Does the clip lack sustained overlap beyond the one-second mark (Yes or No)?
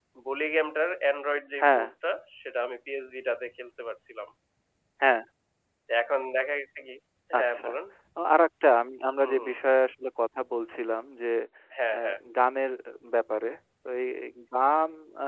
Yes